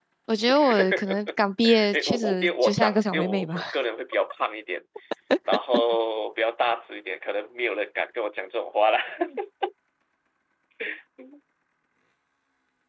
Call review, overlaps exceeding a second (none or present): present